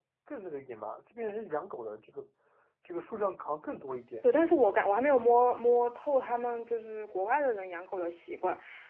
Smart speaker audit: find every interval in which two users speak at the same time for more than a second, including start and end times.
none

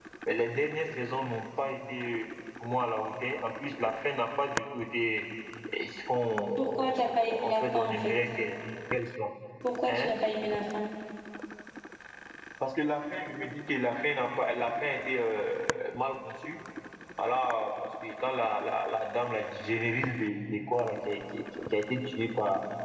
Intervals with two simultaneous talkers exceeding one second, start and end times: 6.6-8.2

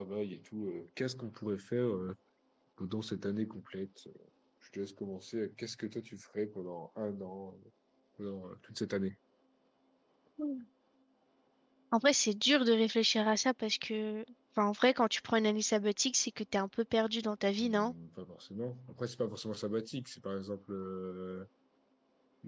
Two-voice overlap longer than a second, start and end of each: none

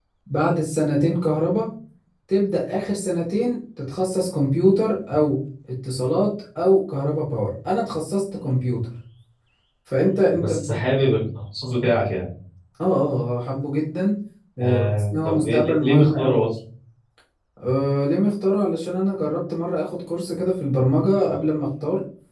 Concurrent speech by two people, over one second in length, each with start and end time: 14.6-16.4

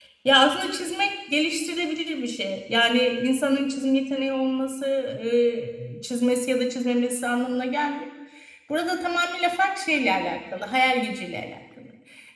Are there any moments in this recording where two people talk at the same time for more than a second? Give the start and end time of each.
none

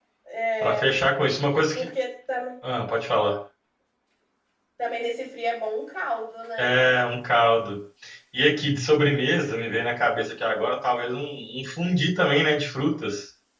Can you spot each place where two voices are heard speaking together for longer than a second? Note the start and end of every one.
none

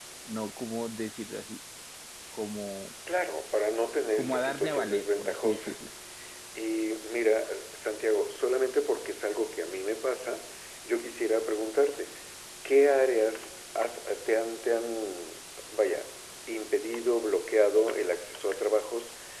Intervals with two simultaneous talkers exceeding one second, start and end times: 4.2-5.7

